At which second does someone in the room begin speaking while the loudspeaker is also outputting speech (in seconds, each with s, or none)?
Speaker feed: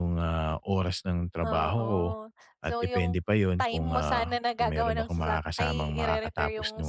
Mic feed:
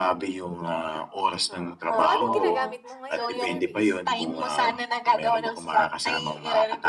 1.5 s